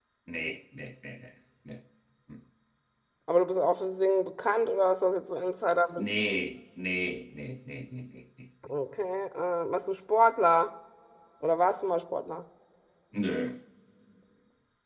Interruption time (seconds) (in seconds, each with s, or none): none